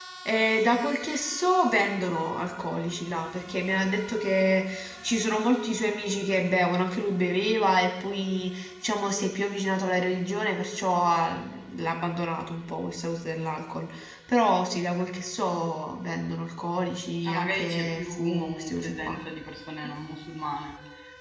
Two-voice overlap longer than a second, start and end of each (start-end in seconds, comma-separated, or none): 17.2-19.2